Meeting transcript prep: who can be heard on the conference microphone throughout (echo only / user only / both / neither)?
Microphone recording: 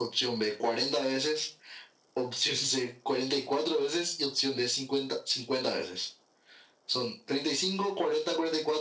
echo only